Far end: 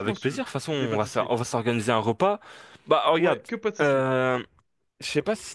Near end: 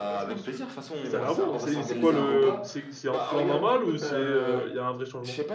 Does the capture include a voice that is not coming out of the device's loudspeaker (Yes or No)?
Yes